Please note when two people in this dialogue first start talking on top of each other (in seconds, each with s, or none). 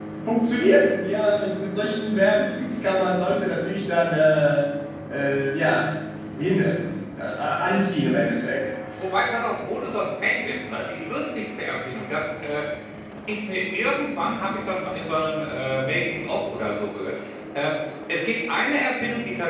none